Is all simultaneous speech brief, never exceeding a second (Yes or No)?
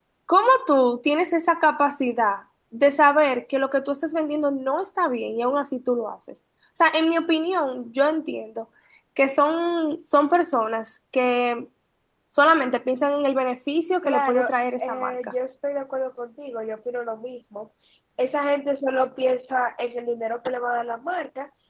No